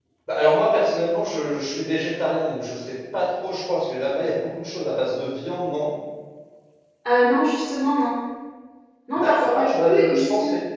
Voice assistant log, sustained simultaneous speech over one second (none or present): present